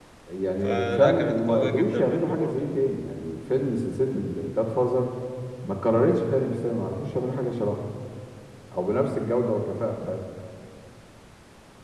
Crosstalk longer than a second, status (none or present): present